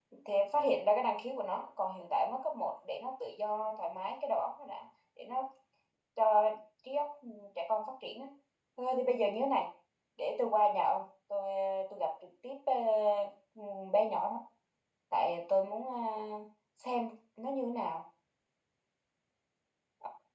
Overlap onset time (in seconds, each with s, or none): none